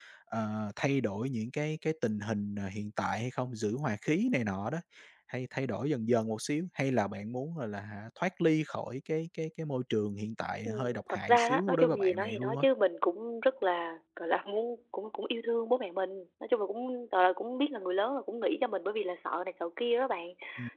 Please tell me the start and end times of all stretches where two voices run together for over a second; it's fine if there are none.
10.6-12.6

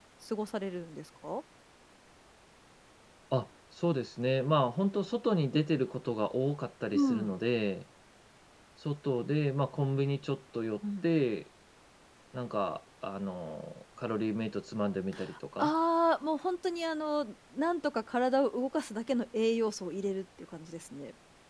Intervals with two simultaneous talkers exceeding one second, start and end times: none

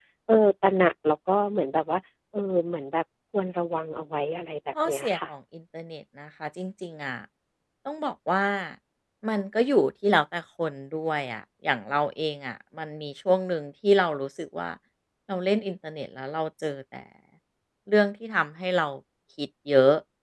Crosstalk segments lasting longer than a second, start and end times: none

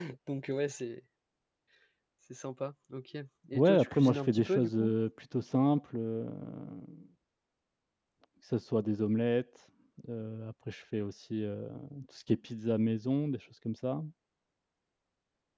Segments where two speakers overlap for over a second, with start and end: 3.5-4.9

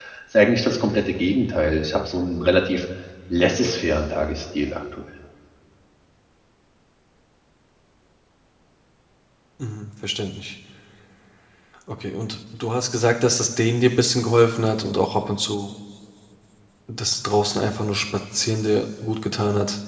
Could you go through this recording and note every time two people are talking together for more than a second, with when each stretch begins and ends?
none

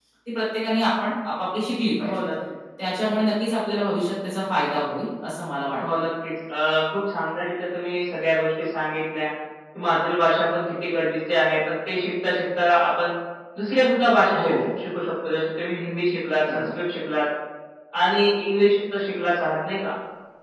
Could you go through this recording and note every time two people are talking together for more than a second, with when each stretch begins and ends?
none

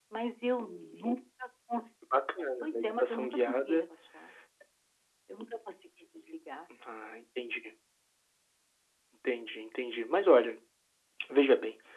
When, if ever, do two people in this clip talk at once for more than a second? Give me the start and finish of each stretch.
2.6-3.8

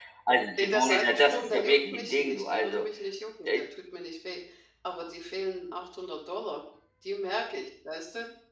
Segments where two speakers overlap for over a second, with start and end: 0.6-2.9

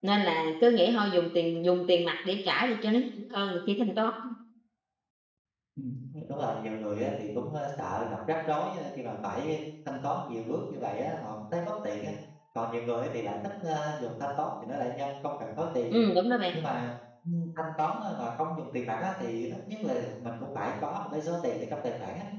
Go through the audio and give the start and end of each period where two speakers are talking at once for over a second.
none

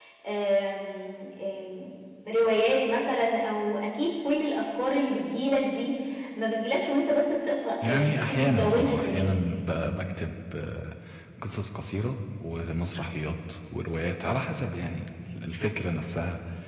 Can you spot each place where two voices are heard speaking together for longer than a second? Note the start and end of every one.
7.8-9.3

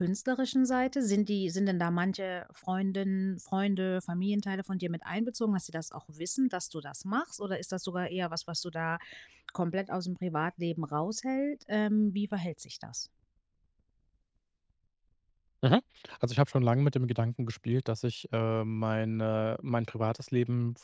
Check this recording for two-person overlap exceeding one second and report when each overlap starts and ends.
none

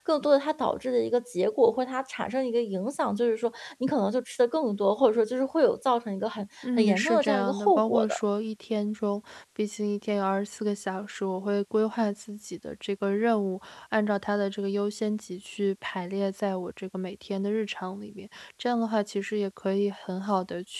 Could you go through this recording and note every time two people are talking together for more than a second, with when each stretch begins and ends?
6.8-8.1

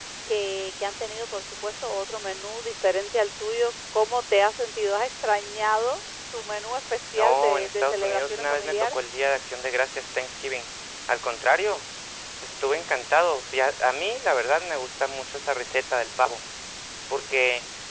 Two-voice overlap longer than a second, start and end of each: 7.1-9.0

